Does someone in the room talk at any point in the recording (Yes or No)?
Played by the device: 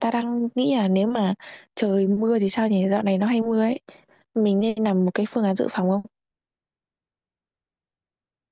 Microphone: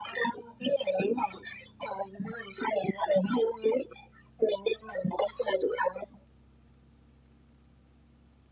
No